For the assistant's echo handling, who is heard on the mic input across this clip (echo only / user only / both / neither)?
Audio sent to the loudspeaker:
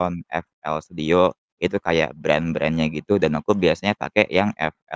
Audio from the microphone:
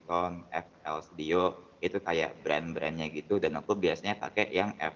echo only